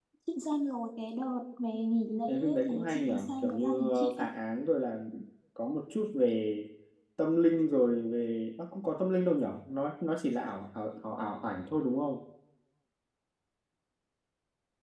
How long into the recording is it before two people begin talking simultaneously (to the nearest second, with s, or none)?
2 s